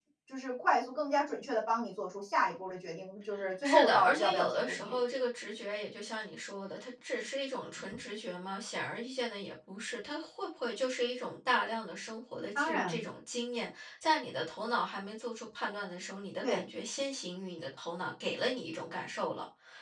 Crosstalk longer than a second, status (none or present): present